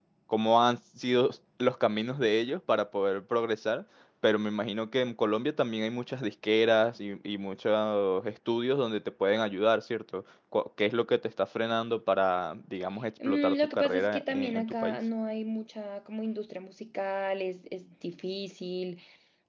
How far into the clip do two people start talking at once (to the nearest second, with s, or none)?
13 s